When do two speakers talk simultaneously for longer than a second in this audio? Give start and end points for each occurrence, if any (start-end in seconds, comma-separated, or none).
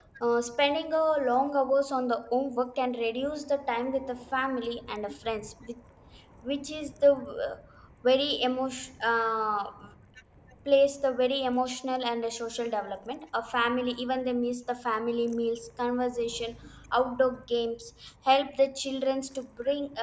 none